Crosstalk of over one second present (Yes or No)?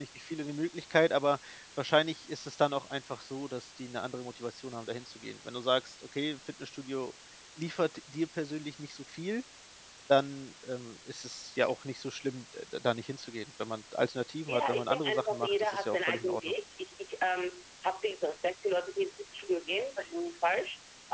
Yes